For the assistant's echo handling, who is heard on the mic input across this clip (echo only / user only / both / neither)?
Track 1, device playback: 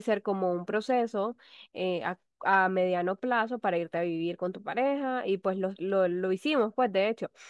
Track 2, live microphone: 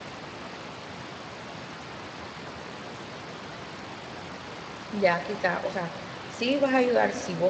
user only